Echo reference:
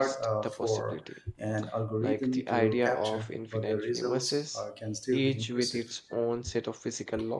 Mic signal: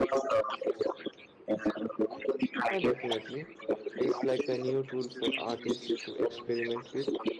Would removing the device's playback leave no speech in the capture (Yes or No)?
No